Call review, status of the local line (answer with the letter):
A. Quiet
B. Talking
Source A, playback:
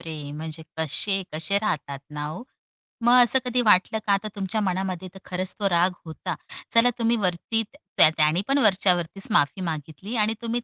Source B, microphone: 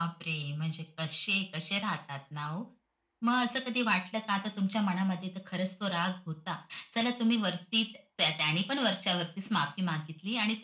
A